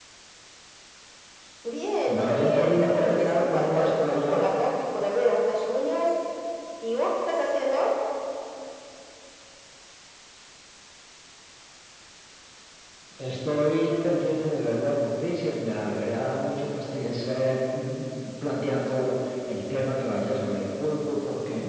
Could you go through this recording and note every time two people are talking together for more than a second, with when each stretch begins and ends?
2.1-4.4

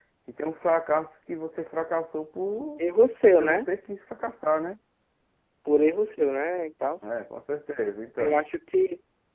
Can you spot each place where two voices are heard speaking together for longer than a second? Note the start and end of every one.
none

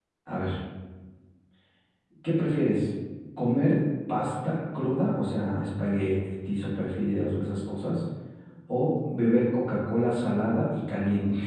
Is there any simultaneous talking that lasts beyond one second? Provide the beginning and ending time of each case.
none

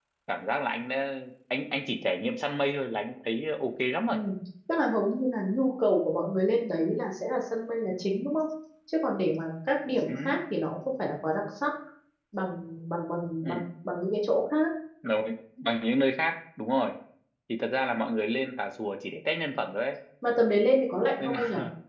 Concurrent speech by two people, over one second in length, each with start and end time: none

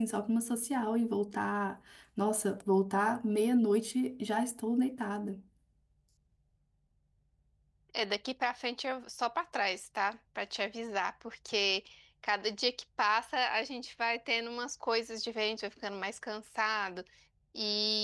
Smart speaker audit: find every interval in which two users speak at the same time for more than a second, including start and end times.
none

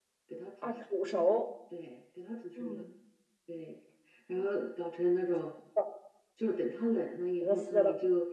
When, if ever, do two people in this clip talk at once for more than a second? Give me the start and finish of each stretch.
none

